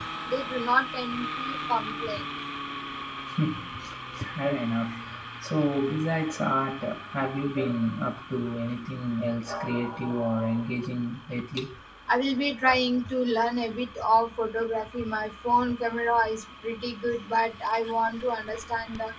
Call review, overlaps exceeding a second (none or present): none